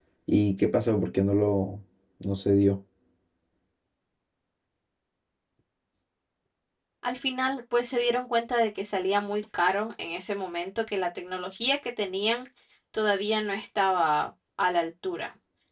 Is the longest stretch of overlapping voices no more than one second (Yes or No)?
Yes